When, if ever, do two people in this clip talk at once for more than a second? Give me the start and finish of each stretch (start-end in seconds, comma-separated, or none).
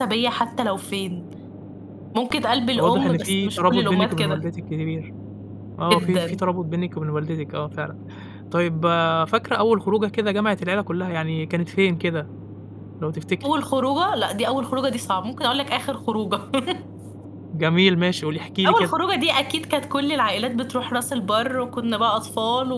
2.8-4.4